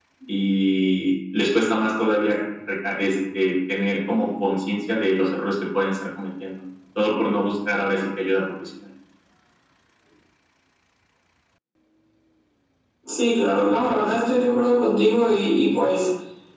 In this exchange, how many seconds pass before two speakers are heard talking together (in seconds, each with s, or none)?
none